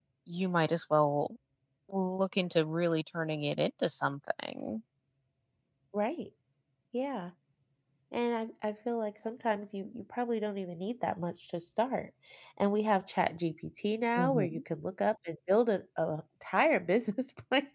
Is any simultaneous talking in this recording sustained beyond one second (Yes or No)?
No